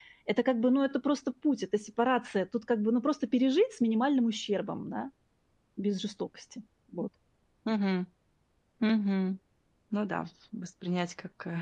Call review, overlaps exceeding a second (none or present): none